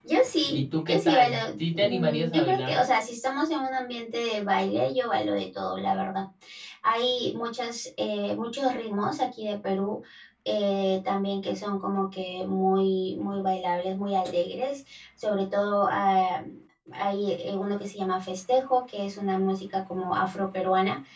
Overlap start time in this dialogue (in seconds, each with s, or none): 0.5 s